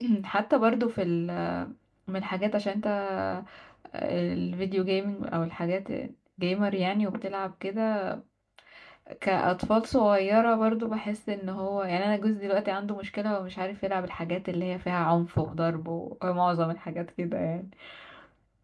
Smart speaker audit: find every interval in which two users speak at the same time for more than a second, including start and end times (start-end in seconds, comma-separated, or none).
none